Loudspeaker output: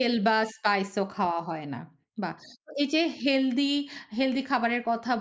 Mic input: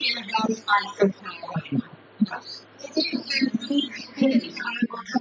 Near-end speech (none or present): present